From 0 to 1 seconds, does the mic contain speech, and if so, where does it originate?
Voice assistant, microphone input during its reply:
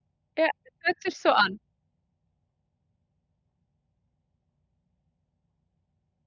user only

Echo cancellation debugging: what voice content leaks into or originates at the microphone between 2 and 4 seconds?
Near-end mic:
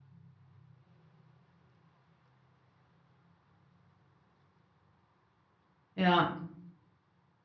neither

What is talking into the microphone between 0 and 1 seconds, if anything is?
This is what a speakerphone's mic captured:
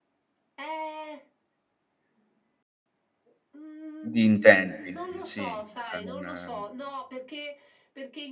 echo only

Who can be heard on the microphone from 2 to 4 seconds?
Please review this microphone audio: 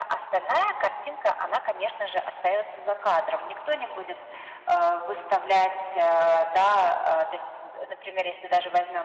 echo only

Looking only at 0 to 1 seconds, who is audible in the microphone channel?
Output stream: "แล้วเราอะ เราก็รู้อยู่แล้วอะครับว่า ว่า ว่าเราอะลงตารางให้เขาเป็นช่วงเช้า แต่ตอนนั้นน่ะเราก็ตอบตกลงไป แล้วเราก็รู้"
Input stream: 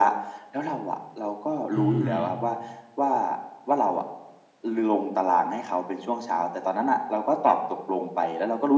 echo only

